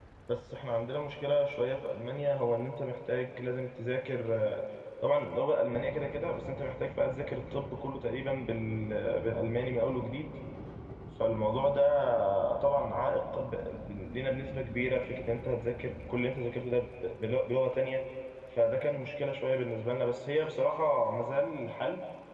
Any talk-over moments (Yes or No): No